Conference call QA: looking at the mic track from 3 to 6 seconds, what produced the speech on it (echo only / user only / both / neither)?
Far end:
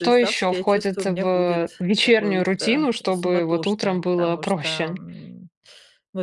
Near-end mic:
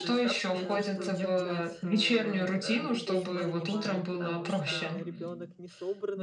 both